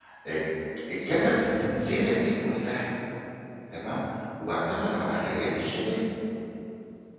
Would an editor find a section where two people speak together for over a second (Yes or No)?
No